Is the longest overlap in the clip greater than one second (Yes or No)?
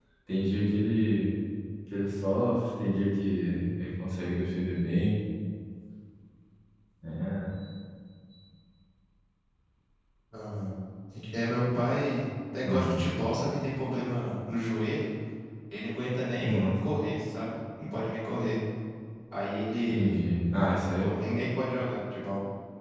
No